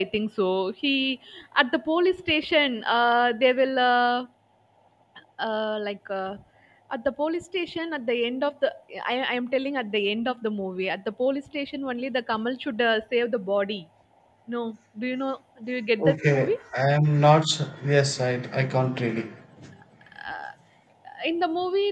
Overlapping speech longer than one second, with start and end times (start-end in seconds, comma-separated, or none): none